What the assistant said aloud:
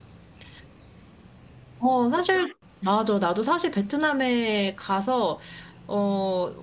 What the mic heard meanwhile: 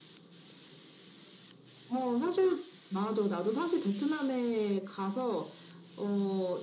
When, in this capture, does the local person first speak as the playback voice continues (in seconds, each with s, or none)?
none